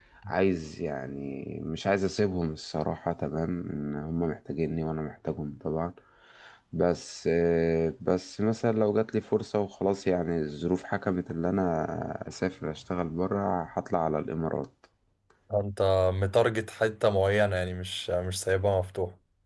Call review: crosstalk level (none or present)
none